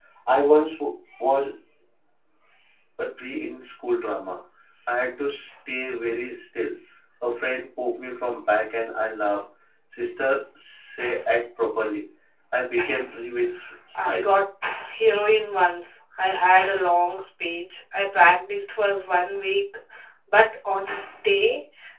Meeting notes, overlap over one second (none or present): none